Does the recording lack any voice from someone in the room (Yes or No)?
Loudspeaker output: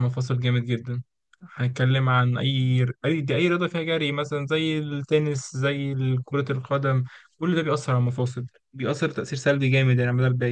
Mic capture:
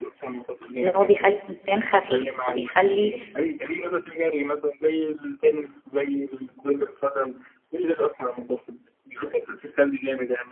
No